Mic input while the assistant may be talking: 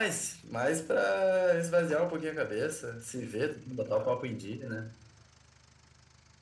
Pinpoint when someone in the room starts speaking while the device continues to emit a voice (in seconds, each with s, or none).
none